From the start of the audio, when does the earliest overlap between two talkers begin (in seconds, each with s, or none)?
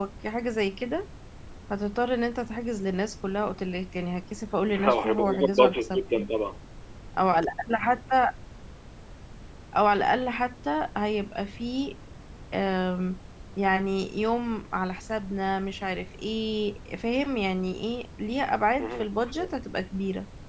4.7 s